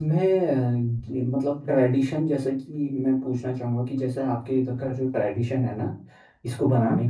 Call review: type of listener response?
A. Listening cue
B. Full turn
A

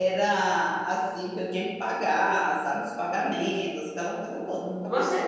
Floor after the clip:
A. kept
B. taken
B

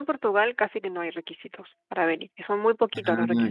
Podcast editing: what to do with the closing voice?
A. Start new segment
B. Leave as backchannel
B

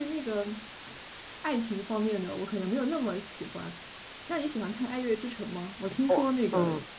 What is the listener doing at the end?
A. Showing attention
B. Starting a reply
A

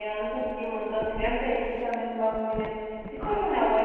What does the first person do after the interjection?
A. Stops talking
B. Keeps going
B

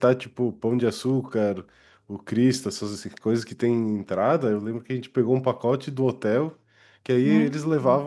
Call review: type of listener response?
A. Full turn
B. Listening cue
B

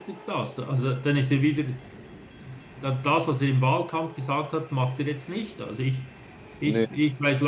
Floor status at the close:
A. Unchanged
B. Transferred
A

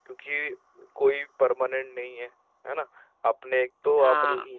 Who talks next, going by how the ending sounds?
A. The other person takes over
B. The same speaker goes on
B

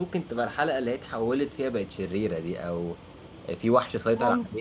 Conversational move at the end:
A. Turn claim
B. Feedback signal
B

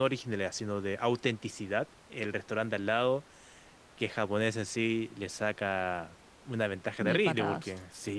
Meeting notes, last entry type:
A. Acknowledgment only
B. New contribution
A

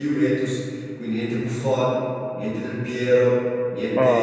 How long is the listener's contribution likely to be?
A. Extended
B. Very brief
B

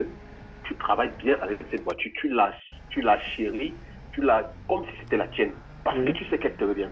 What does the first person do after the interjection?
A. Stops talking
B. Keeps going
B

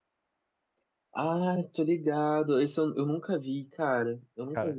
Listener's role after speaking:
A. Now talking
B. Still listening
A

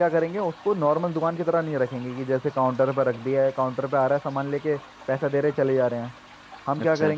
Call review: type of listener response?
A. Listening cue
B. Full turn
A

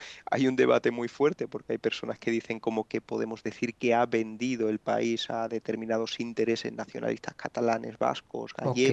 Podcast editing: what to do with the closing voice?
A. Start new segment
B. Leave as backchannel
A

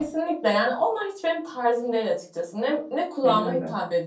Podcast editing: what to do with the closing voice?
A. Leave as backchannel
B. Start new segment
A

